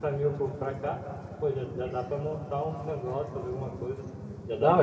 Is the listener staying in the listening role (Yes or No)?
No